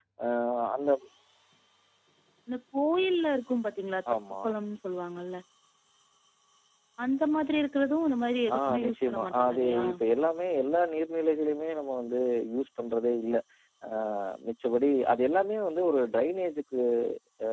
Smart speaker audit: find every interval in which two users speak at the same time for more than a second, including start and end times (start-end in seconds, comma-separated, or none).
8.6-9.9